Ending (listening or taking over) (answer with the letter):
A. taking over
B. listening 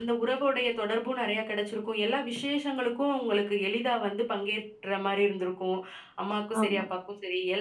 B